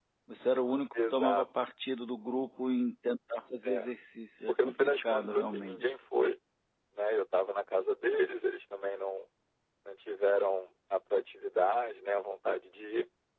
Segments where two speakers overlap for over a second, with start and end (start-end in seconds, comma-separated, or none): 4.5-5.8